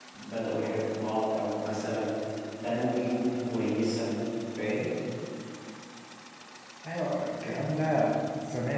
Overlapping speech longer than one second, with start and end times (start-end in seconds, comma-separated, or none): none